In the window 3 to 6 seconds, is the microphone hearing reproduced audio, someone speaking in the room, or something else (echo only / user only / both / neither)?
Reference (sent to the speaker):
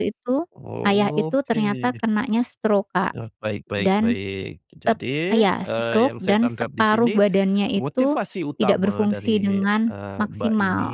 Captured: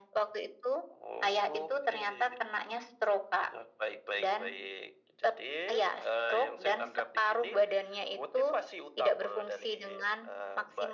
echo only